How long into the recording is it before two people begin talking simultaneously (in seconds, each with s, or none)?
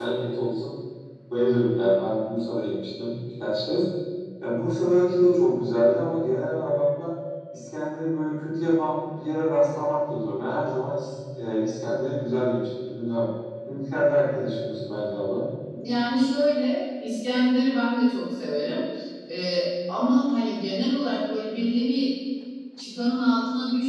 none